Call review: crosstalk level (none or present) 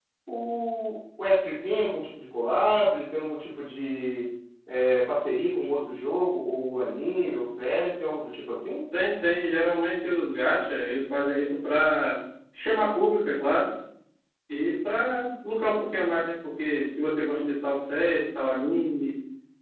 none